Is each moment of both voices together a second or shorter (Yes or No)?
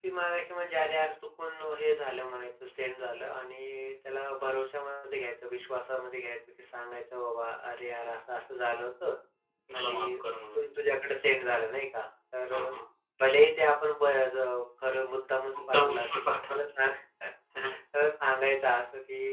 No